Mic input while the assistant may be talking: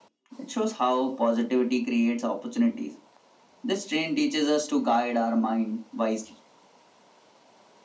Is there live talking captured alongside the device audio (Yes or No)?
No